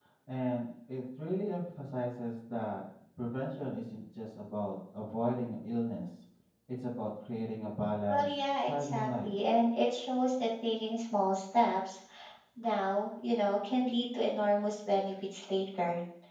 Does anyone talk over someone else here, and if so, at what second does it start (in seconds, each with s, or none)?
8.1 s